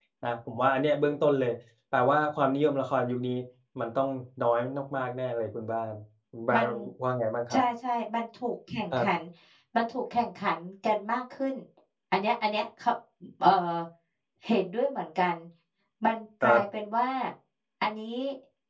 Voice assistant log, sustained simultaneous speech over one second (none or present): none